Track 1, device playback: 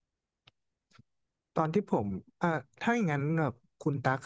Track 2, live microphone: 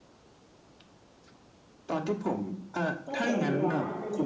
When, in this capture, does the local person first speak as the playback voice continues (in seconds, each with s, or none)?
3.0 s